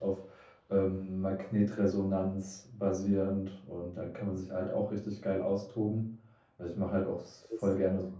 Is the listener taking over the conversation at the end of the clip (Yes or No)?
No